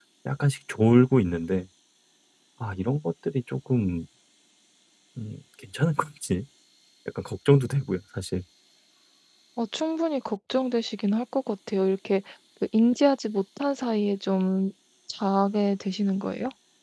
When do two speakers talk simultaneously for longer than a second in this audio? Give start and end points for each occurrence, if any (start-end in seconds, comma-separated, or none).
none